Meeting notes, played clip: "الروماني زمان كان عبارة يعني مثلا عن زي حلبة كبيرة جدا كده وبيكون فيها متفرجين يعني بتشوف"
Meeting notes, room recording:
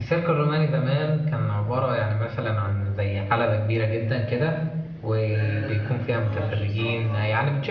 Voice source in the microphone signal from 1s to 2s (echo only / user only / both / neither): echo only